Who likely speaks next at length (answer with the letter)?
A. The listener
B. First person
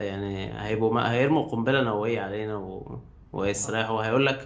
B